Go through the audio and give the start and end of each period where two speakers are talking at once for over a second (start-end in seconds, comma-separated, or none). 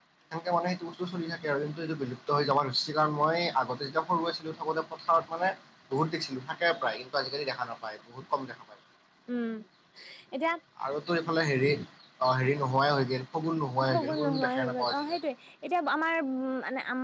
13.9-15.2